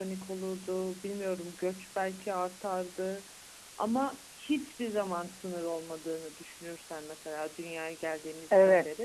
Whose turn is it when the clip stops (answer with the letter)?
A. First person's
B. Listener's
A